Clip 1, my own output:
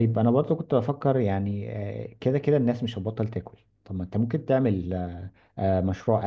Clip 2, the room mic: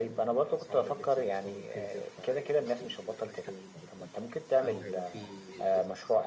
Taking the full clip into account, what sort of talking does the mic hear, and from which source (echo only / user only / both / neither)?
both